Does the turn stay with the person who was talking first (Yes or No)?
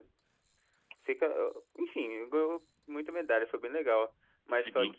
Yes